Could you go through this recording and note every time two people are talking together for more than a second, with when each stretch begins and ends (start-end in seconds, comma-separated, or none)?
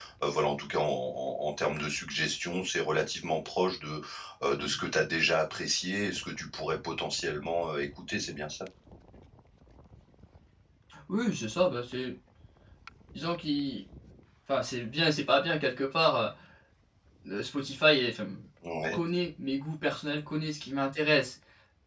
none